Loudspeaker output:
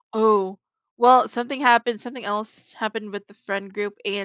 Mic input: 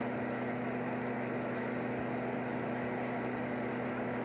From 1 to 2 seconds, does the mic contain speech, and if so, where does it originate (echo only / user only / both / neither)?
neither